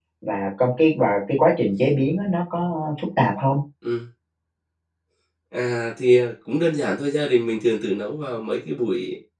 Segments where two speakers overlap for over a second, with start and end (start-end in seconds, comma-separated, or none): none